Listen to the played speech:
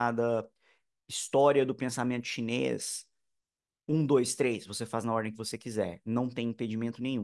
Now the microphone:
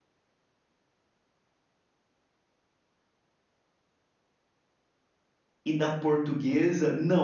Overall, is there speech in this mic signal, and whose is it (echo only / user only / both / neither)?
user only